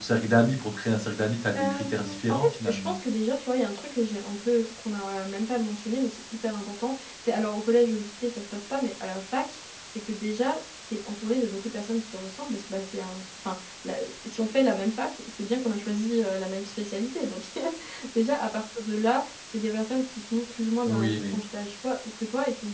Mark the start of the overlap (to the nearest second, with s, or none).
2 s